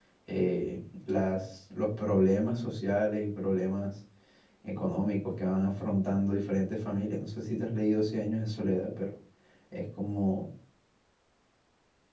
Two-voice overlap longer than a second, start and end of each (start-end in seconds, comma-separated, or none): none